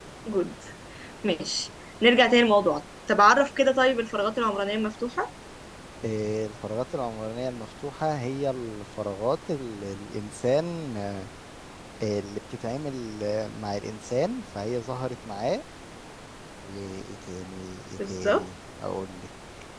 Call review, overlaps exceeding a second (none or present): none